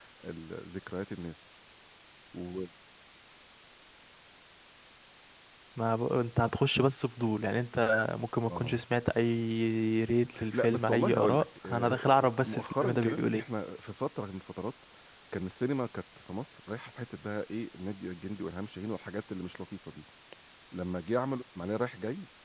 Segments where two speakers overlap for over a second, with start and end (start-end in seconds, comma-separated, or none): 10.5-13.4